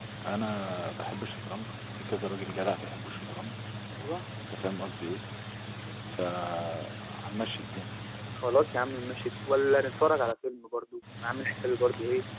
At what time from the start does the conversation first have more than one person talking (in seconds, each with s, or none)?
none